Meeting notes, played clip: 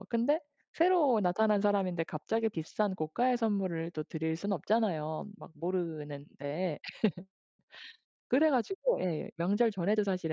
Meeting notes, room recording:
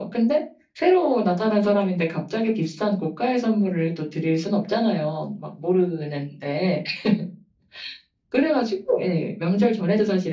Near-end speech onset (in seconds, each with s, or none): none